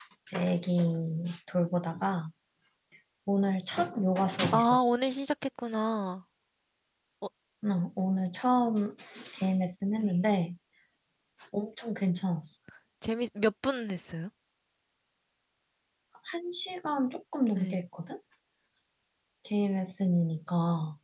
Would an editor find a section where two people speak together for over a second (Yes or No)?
No